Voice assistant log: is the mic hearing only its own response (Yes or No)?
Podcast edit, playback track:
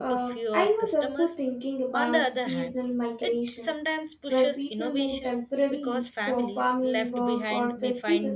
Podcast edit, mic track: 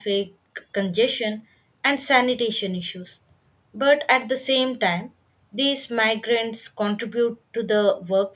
No